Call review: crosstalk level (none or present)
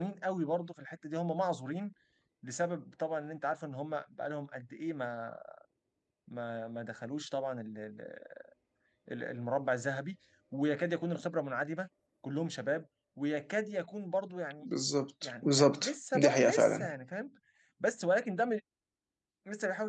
present